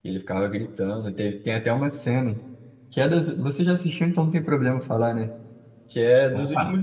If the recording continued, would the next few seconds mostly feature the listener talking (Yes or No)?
No